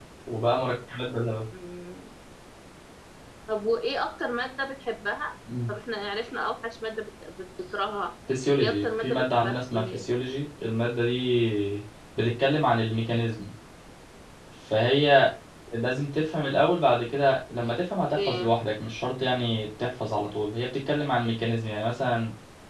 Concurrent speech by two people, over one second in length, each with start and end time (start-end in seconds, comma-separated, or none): 8.6-10.0